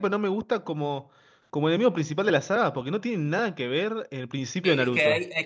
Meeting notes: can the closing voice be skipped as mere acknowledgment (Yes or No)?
No